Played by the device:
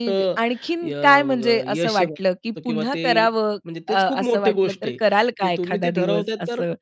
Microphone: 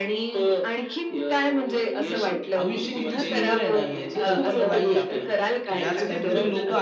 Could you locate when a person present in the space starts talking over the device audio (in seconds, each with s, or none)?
2.1 s